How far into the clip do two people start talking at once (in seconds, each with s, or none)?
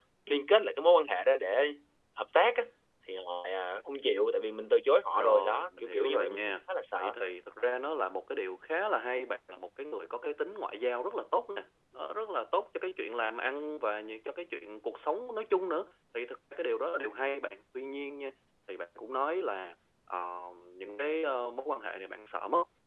5.1 s